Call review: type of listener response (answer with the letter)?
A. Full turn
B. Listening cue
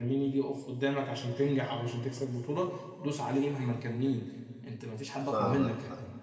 A